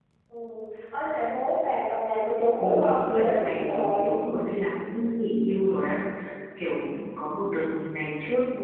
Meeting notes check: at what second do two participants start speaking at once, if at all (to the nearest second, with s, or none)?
3 s